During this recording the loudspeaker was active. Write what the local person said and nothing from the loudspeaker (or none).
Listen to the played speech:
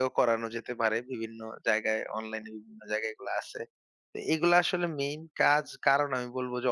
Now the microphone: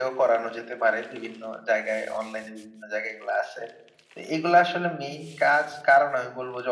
none